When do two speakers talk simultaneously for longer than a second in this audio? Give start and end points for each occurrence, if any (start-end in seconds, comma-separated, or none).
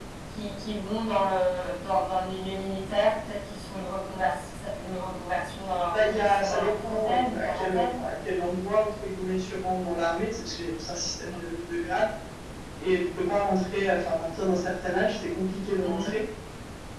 6.0-7.9